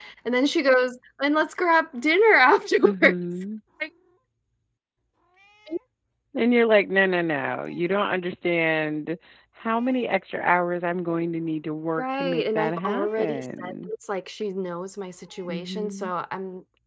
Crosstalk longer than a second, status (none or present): present